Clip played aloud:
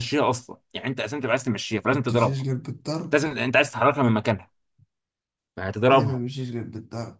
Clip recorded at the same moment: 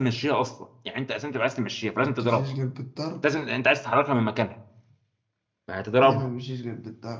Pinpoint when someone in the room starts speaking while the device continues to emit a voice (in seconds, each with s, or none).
none